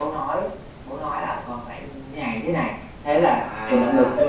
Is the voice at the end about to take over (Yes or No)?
Yes